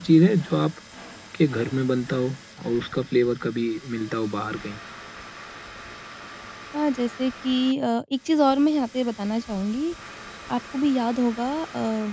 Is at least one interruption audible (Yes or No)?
No